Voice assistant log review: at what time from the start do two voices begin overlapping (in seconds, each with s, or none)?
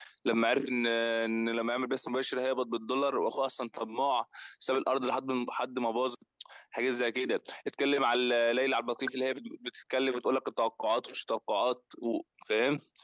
none